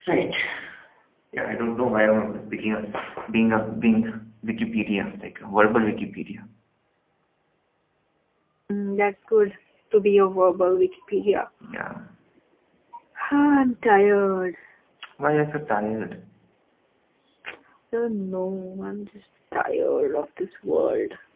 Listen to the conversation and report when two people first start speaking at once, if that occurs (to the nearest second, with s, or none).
none